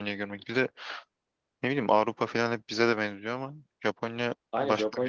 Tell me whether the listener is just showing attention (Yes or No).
No